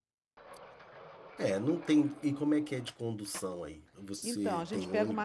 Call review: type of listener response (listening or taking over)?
taking over